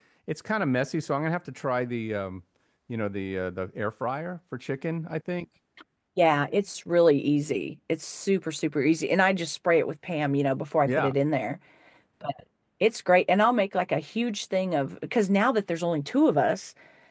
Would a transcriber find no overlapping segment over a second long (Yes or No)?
Yes